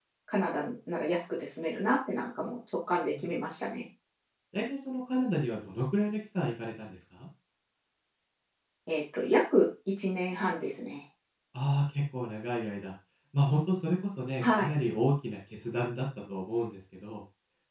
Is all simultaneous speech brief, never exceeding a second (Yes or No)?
Yes